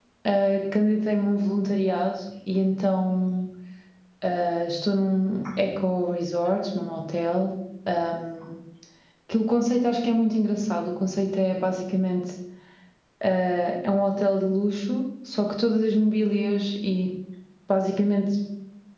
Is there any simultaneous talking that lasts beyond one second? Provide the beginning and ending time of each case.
none

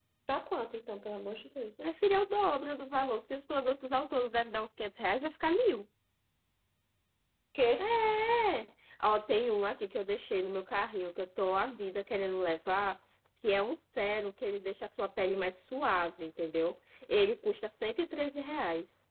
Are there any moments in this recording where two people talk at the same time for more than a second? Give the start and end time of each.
none

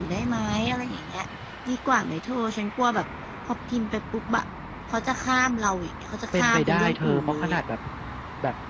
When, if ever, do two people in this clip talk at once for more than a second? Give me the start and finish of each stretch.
6.3-7.6

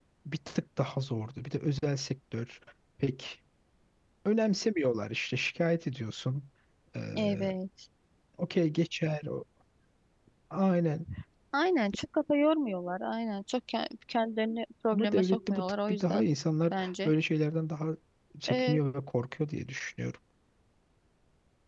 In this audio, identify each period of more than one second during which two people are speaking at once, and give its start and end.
14.9-16.3

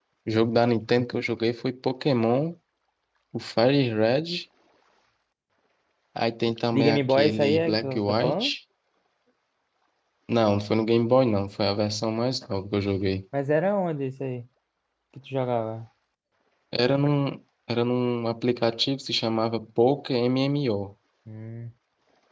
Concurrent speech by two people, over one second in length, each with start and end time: 6.7-8.5

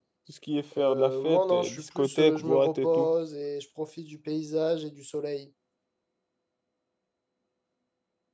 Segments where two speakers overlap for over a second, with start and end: 0.8-3.1

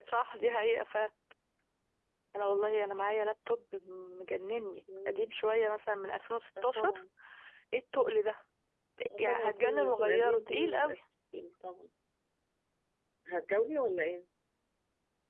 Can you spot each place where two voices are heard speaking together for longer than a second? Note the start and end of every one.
9.2-11.0

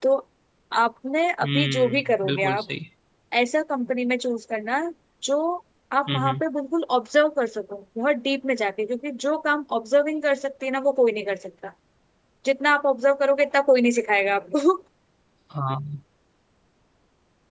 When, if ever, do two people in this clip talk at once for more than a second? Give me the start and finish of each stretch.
1.4-2.6

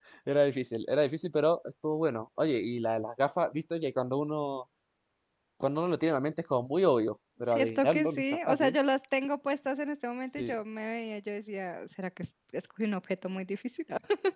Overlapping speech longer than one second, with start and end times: 7.5-8.8

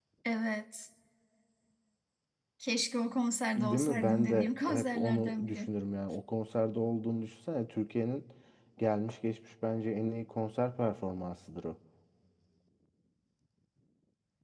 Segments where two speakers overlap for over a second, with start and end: 3.6-5.7

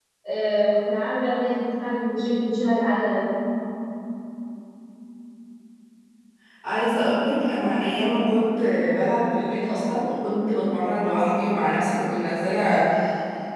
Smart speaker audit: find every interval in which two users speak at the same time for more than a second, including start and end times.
none

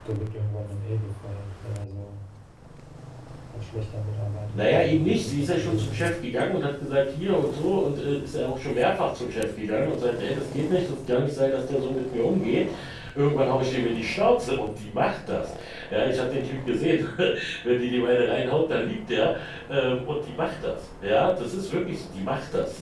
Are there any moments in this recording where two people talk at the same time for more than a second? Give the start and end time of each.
4.5-6.1

